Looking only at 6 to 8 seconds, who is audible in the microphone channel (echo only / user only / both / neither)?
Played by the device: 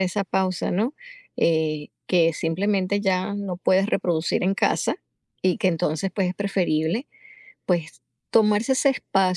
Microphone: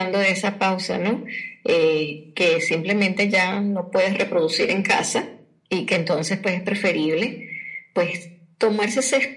echo only